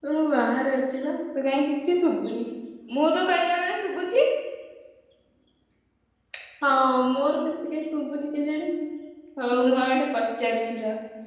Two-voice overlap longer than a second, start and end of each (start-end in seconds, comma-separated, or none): none